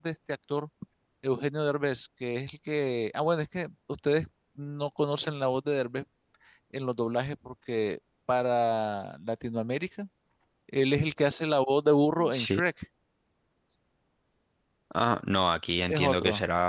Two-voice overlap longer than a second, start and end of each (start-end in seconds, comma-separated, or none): none